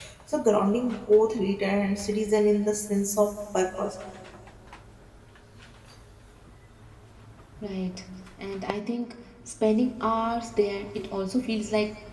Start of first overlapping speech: none

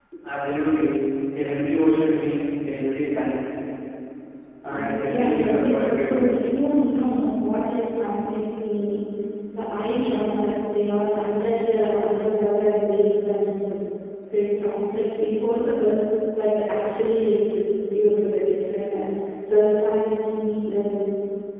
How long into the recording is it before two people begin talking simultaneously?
4.6 s

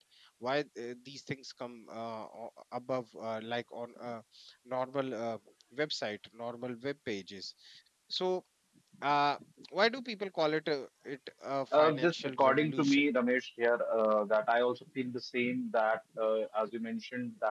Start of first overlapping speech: 11.7 s

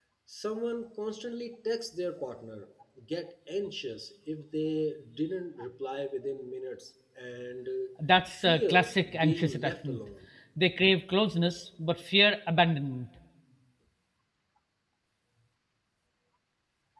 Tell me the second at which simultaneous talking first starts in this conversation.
8.4 s

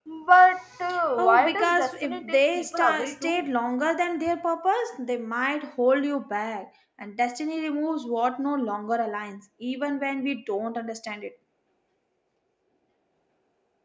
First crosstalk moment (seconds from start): 1.2 s

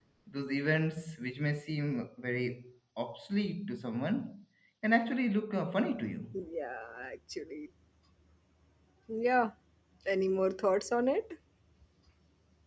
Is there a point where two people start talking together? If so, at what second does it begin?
none

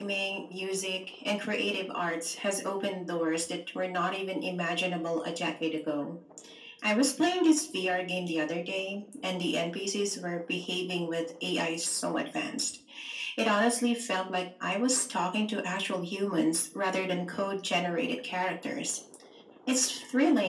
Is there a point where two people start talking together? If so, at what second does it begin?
none

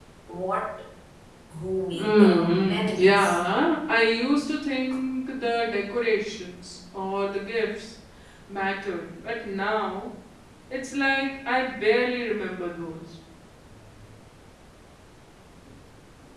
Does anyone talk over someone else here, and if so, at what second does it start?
1.9 s

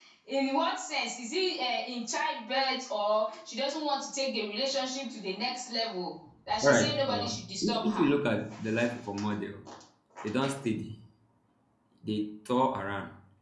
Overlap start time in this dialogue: 6.6 s

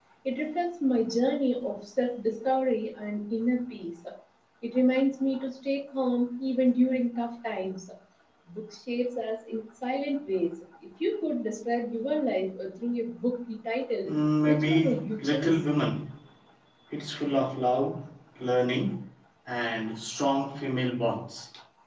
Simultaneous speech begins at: 14.0 s

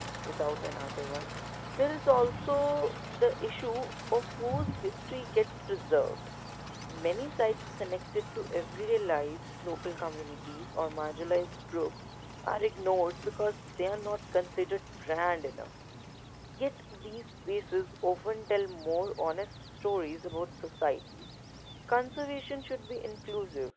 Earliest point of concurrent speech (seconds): none

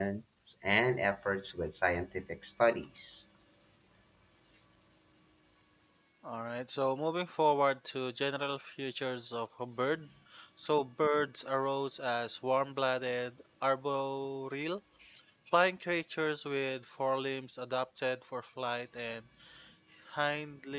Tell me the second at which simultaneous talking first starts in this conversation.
none

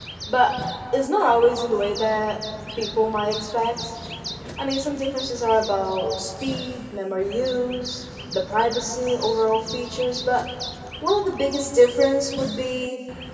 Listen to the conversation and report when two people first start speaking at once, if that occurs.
none

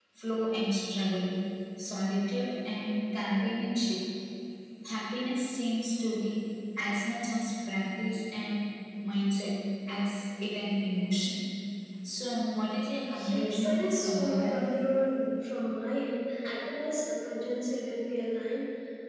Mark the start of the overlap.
13.2 s

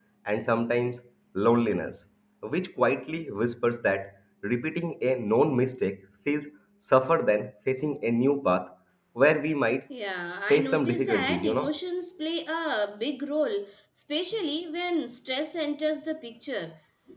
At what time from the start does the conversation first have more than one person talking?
10.5 s

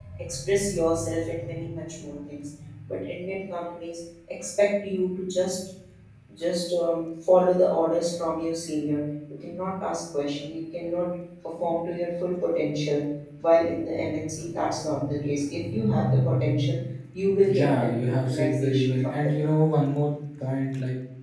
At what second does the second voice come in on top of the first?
17.5 s

